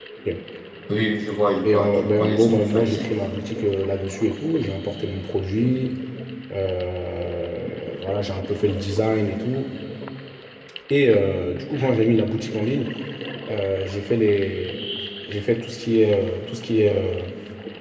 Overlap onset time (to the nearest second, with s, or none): 2 s